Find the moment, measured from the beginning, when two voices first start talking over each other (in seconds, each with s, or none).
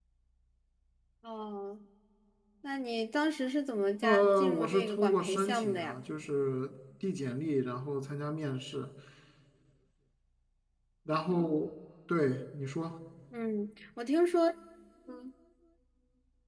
4.0 s